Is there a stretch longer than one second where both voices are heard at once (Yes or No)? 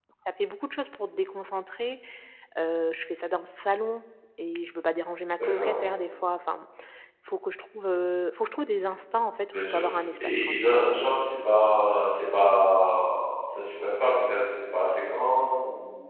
No